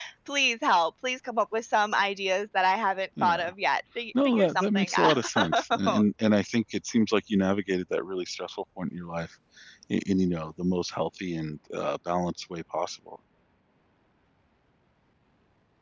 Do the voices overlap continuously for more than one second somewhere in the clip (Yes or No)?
Yes